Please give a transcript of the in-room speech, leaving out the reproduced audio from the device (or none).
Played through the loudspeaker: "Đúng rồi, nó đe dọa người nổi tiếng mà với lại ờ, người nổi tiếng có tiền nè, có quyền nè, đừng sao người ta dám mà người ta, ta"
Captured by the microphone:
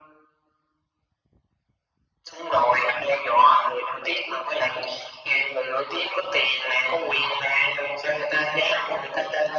none